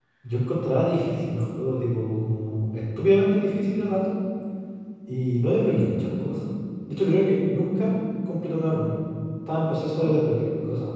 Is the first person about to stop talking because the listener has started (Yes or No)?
No